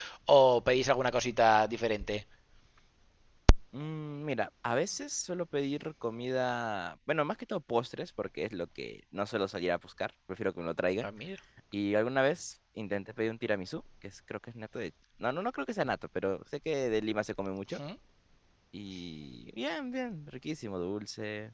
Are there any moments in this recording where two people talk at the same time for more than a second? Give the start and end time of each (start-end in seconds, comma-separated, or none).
none